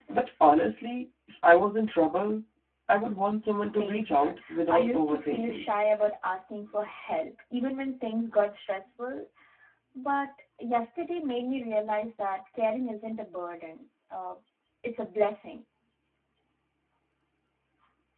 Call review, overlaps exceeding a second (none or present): present